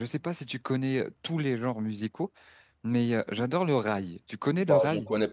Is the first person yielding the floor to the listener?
Yes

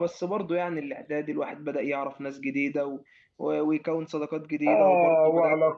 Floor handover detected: Yes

